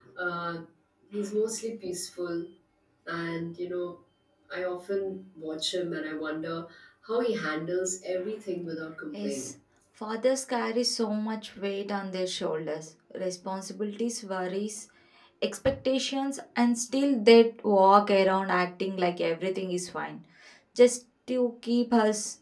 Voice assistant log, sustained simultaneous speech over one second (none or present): none